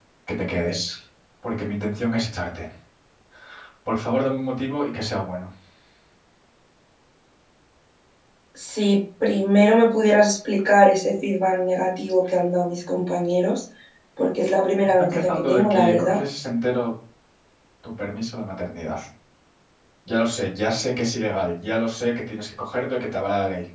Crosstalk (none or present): present